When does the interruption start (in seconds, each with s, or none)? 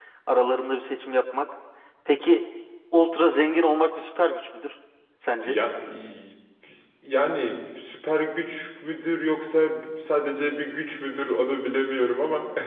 none